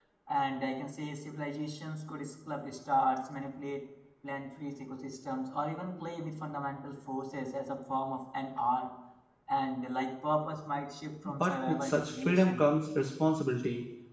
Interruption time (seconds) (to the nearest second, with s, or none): 11 s